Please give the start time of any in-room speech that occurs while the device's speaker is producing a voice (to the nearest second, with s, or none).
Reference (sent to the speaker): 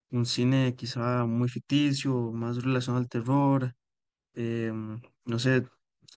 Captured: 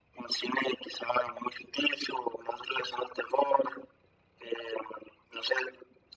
none